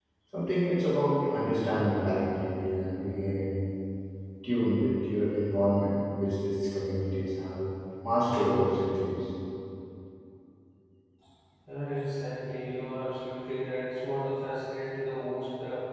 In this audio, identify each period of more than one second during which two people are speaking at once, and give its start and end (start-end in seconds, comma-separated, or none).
none